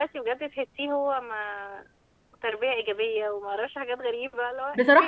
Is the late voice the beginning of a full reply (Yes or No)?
Yes